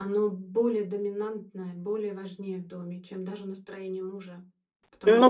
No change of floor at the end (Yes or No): No